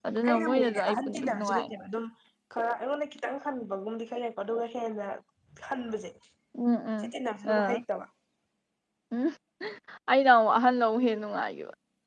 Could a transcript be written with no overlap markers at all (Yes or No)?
No